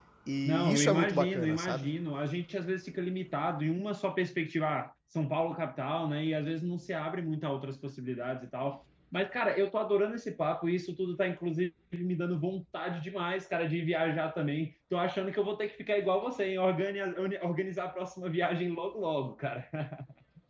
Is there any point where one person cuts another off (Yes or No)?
Yes